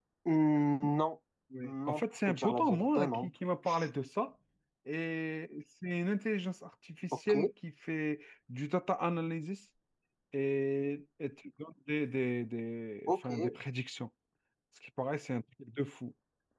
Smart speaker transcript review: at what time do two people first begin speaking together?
1.6 s

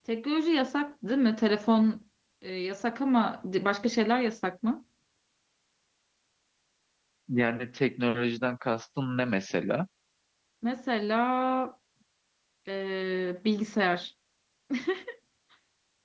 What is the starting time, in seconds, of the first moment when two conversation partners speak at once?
none

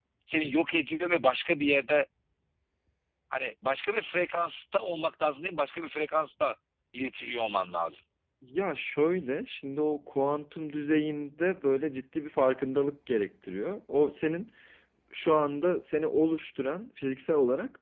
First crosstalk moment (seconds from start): none

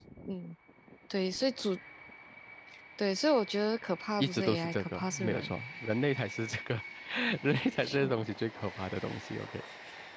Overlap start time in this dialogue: 4.2 s

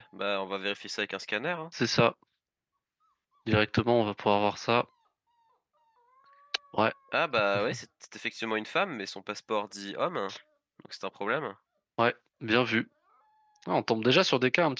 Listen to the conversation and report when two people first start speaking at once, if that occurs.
none

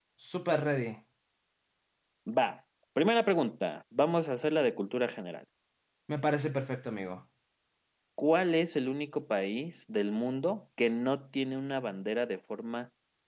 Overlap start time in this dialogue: none

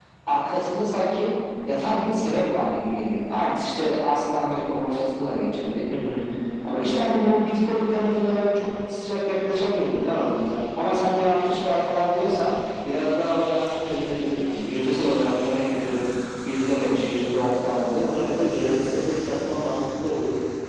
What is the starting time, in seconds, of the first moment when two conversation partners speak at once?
none

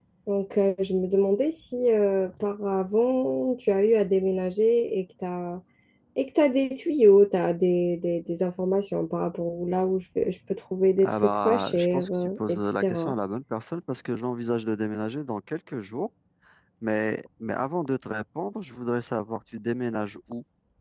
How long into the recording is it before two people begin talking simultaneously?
11.0 s

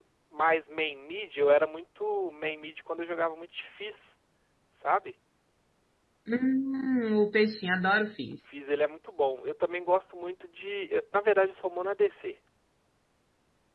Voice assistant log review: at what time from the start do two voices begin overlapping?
none

